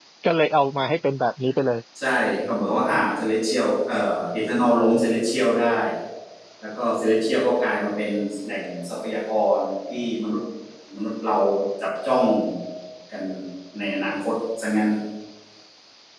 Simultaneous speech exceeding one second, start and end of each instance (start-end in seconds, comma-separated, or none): none